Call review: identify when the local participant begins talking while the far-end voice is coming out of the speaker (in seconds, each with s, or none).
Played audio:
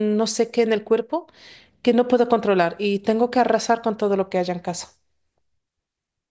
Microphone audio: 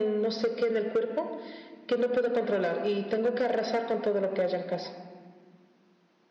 none